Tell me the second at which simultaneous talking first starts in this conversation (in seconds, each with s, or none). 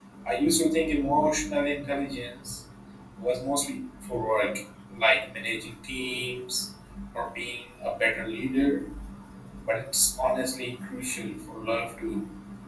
none